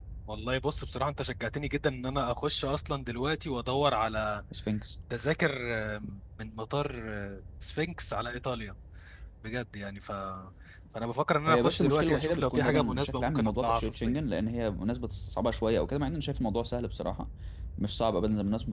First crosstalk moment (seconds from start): 11 s

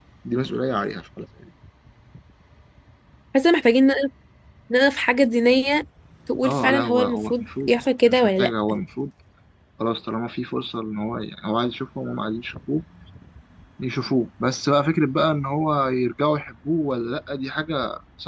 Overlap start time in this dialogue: 6 s

